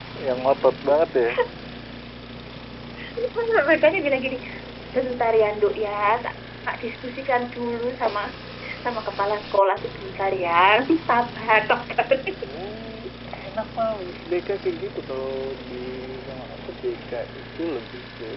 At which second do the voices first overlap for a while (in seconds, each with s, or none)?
none